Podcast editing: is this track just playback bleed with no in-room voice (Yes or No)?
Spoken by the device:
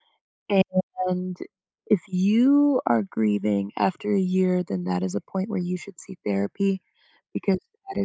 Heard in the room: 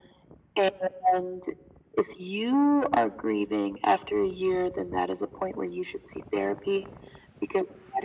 Yes